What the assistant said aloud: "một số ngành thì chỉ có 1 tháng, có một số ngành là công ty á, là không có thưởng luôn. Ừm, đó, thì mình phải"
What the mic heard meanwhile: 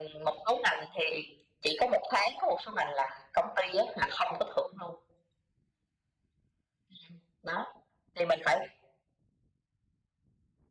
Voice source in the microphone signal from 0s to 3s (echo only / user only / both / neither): echo only